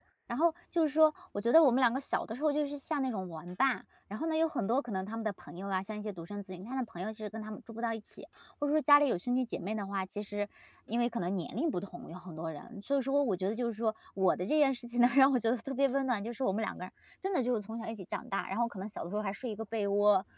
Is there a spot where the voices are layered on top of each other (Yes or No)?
No